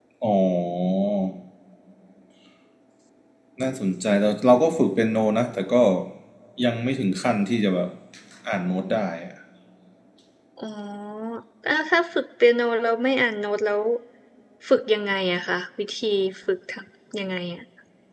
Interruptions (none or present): none